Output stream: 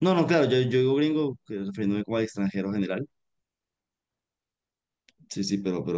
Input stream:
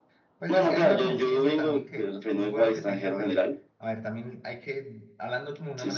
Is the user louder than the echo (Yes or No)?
No